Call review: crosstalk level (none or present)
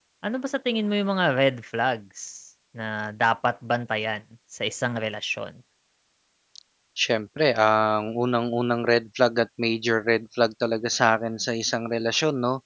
none